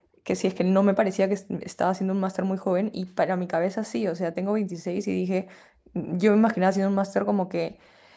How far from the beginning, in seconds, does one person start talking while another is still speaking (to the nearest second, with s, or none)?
none